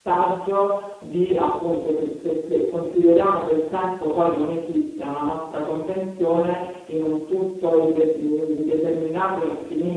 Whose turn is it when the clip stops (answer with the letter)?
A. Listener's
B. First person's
A